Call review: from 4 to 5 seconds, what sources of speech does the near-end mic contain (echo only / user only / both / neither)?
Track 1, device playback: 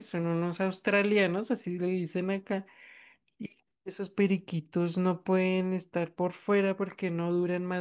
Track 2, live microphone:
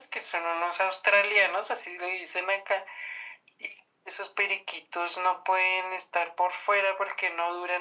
echo only